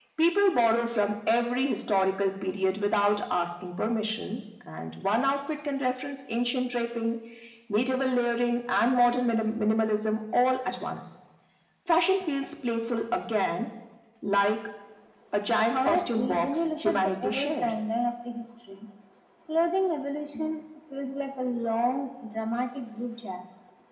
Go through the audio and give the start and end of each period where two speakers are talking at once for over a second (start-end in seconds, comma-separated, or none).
15.7-17.9